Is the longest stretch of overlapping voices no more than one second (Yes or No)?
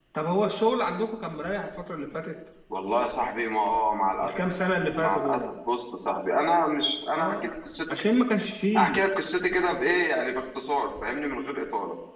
Yes